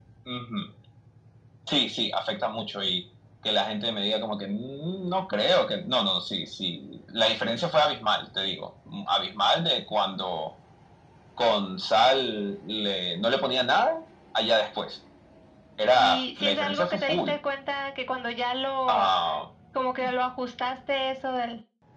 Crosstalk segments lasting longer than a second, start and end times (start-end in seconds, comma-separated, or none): 15.9-17.3